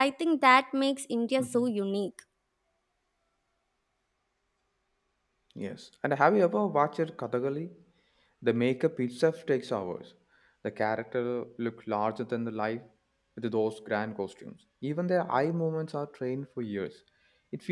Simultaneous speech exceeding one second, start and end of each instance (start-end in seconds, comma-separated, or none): none